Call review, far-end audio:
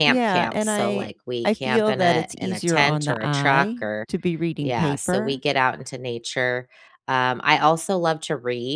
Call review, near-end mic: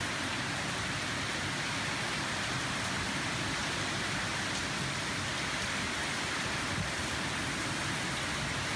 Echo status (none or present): none